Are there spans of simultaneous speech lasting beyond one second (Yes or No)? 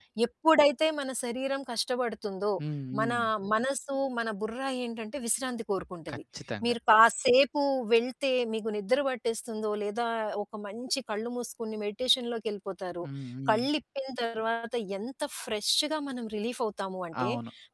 No